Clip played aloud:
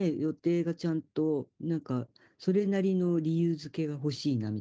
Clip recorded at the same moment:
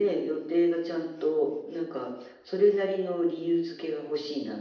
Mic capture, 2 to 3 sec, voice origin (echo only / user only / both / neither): echo only